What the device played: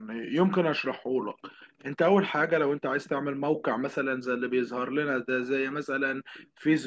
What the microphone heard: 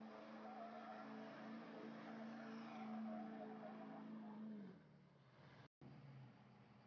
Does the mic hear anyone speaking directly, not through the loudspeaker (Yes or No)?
No